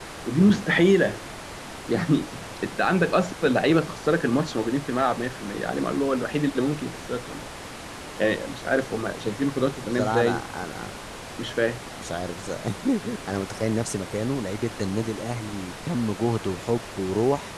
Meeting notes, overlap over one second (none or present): none